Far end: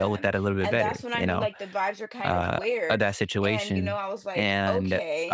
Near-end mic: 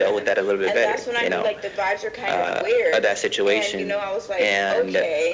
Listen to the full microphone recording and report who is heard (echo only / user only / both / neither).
echo only